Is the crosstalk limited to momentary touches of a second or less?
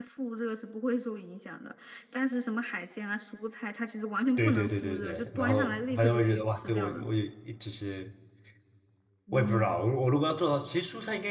No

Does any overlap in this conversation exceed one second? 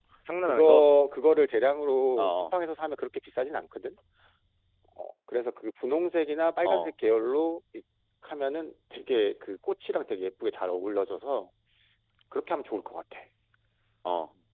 No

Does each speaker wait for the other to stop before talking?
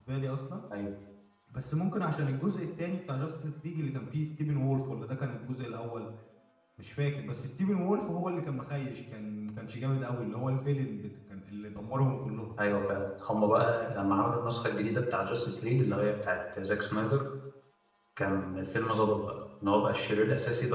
Yes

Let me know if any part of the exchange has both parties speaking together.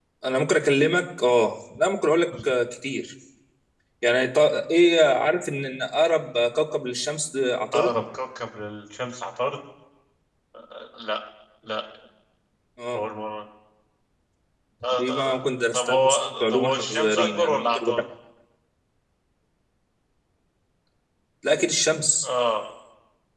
Yes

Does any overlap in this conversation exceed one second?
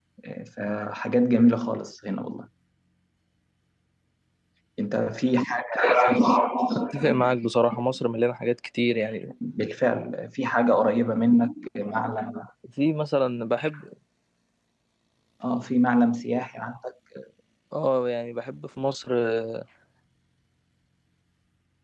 No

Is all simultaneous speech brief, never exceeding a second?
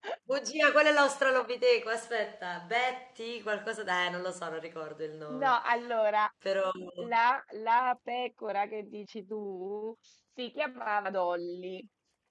Yes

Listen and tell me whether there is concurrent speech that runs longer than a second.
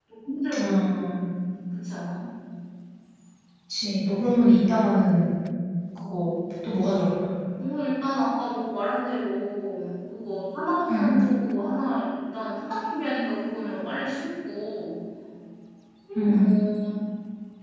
No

